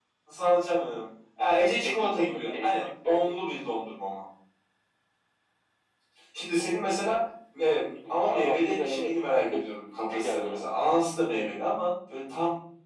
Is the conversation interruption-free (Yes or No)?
No